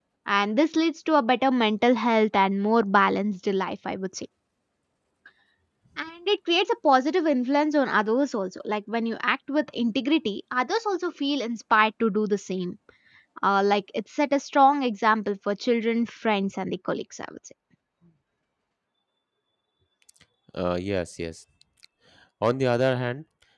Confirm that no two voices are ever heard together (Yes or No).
Yes